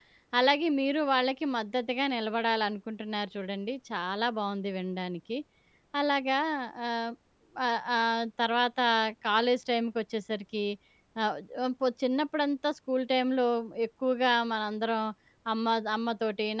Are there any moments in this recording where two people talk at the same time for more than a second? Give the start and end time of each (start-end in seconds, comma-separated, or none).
none